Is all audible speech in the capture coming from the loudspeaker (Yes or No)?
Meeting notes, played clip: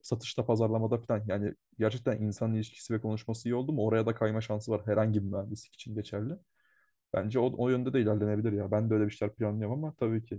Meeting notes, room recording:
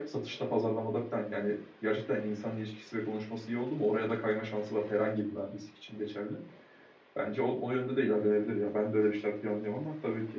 Yes